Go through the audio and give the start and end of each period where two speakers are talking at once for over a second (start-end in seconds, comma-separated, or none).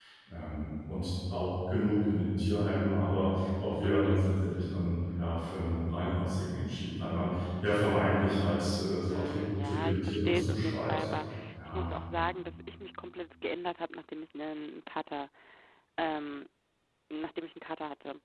9.0-11.0